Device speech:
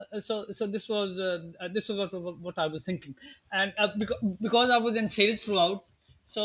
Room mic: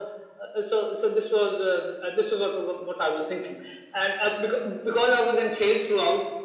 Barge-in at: none

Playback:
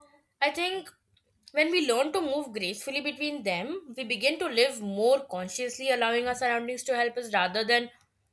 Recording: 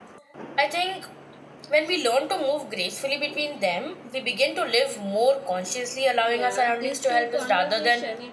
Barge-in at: 6 s

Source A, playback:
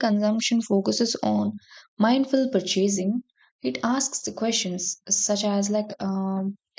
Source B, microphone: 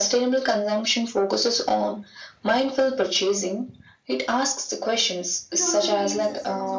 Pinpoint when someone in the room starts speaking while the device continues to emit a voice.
6 s

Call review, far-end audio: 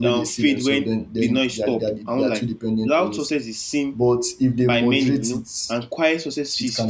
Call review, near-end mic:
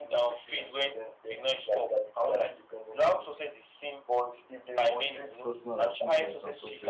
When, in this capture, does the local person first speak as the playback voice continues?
5 s

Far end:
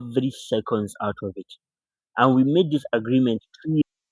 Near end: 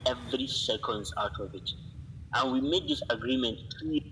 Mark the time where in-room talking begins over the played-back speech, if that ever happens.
none

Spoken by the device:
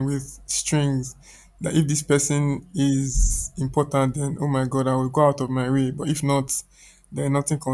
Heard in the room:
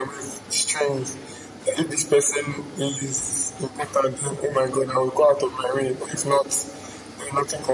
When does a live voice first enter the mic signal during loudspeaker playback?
none

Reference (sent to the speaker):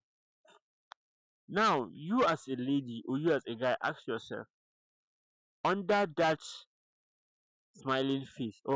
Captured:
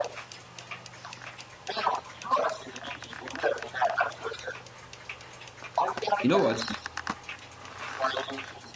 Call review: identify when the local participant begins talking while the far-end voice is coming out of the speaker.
6 s

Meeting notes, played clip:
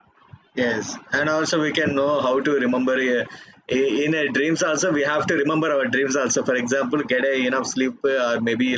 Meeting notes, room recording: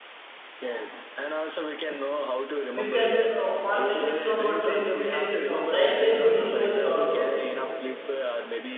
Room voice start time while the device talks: 3 s

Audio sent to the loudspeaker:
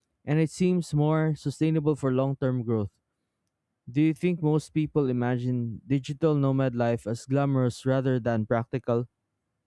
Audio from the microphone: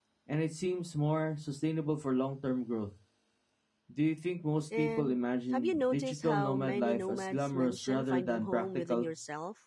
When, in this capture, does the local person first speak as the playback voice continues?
5 s

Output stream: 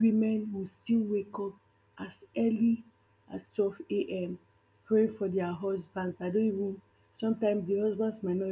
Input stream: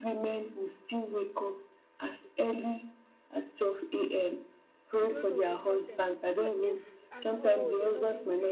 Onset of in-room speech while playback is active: 5 s

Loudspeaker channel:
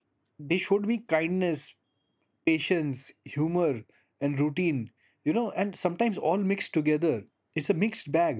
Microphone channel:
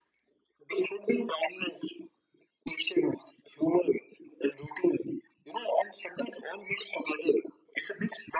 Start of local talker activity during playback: none

